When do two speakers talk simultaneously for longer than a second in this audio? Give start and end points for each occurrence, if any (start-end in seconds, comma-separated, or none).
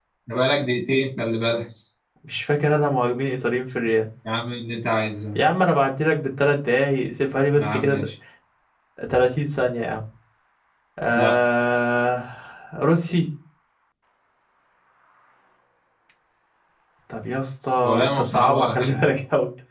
17.8-19.1